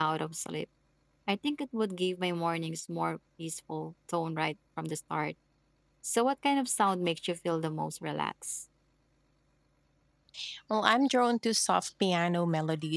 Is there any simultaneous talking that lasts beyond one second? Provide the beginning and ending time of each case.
none

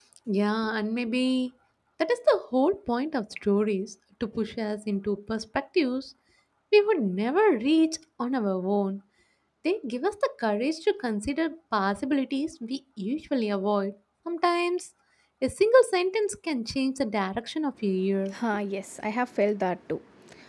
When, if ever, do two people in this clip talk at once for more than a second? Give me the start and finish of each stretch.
none

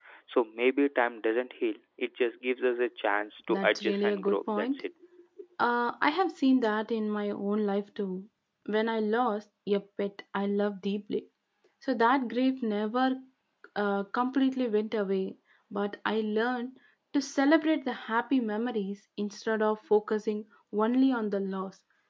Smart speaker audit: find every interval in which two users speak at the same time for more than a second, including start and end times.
3.5-4.8

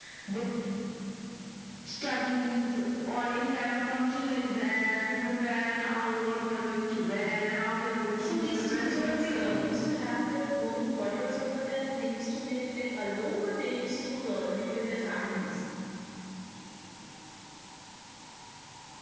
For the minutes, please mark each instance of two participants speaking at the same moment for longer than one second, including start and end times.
8.2-9.6

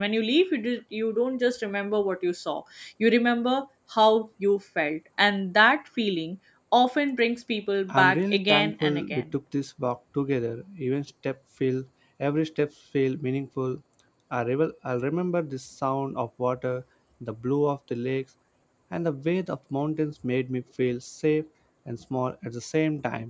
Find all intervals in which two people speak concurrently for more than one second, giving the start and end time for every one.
7.9-9.2

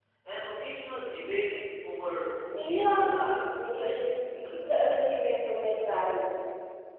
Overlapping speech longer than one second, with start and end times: 2.5-4.7

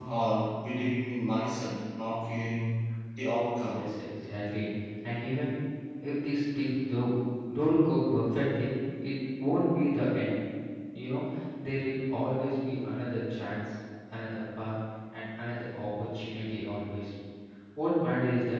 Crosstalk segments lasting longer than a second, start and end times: none

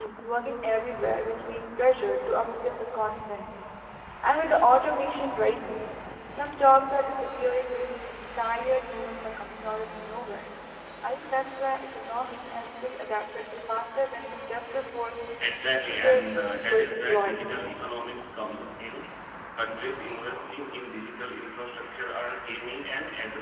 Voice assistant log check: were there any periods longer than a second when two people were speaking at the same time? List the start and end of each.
15.6-17.3

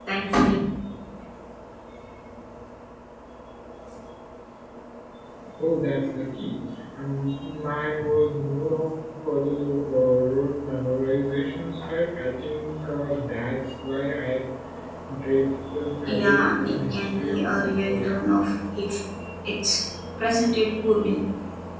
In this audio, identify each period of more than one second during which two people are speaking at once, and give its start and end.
16.1-18.1

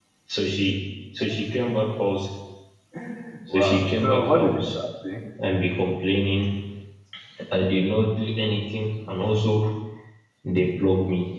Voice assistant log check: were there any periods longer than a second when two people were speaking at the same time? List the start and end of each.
3.5-4.8

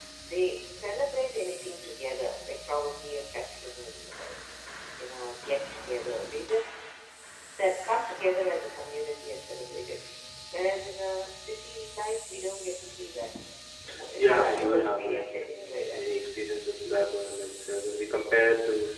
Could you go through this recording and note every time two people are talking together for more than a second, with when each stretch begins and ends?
14.2-16.0

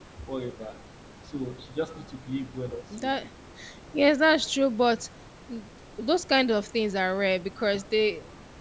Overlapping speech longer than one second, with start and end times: none

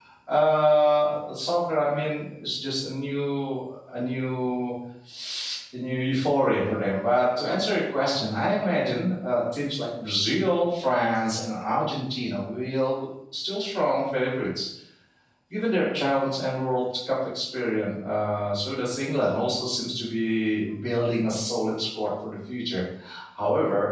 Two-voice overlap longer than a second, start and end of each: none

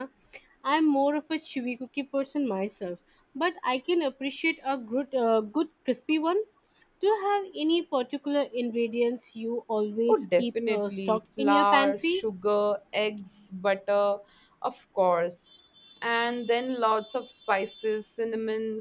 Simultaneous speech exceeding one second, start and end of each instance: 10.1-12.2

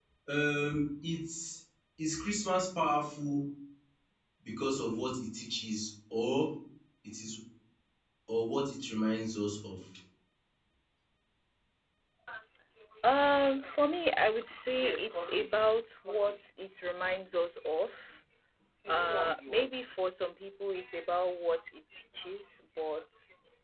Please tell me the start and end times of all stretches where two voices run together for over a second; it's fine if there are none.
none

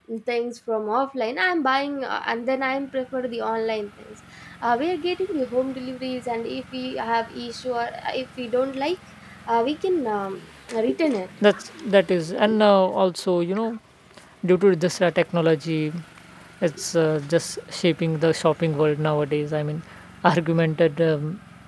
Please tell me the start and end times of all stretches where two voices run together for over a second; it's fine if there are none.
none

